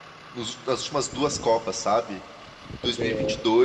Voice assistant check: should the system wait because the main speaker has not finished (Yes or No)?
Yes